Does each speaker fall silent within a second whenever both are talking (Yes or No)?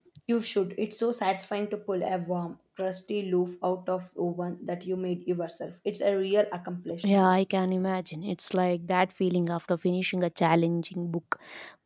Yes